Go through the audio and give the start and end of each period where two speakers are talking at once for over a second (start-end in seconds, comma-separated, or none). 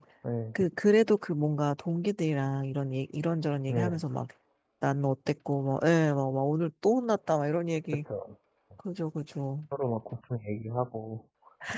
none